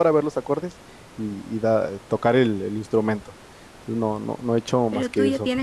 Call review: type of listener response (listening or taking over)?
taking over